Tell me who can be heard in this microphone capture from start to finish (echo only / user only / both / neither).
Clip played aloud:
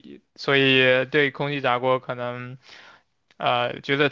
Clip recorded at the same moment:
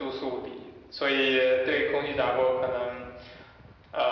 echo only